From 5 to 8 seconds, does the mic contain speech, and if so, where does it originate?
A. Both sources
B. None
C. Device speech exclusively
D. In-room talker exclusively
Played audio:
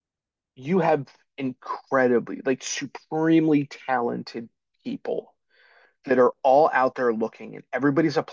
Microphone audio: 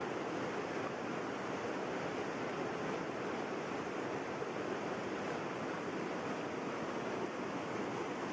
B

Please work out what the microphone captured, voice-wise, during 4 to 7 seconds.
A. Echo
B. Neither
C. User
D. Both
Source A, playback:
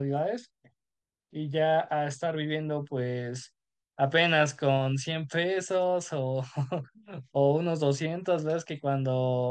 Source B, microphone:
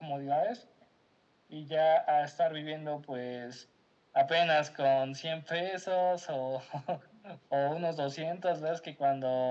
A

